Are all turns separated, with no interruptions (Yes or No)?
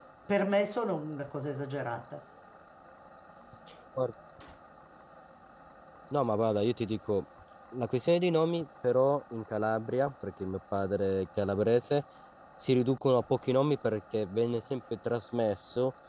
Yes